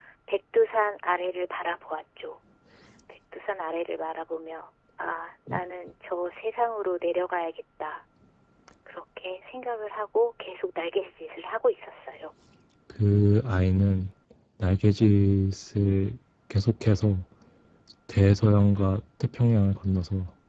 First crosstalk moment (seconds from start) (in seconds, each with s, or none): none